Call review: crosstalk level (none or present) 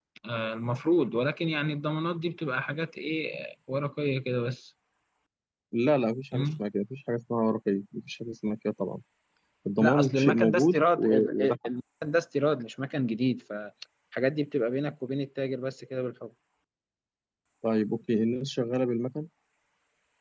present